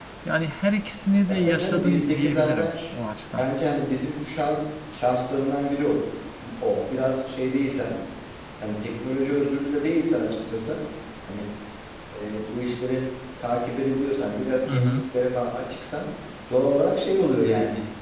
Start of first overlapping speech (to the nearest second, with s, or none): 1 s